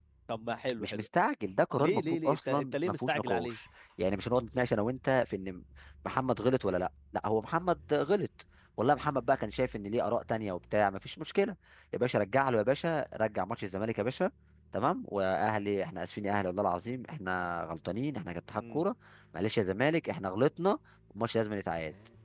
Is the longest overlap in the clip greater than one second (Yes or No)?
Yes